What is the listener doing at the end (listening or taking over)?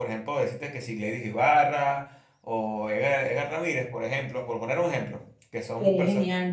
listening